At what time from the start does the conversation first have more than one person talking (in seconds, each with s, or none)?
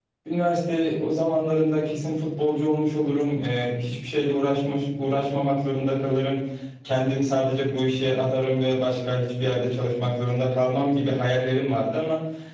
none